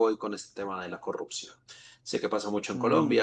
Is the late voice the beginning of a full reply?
No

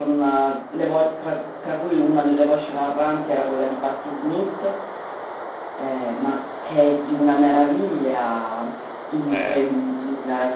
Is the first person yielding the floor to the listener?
No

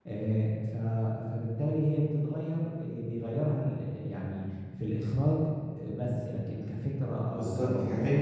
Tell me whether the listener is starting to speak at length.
Yes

